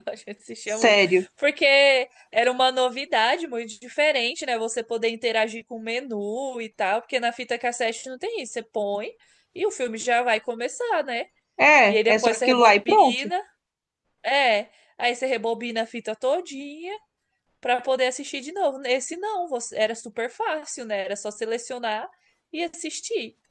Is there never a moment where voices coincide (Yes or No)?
No